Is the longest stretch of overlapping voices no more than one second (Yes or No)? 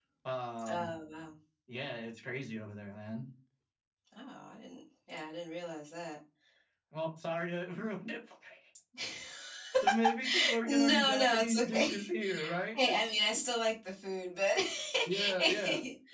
No